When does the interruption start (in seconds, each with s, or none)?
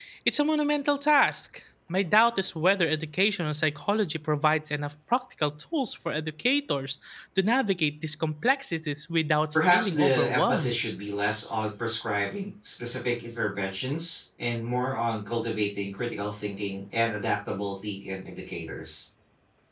9.6 s